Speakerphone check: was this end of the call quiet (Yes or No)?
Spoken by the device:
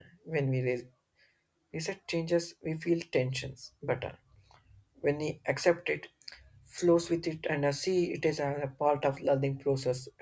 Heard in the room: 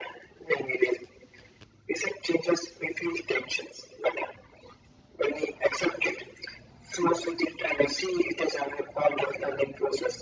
Yes